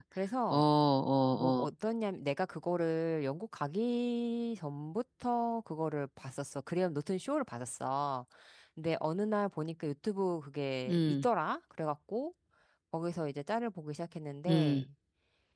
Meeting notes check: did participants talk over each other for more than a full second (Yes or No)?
No